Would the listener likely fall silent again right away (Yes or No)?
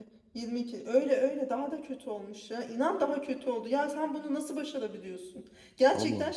Yes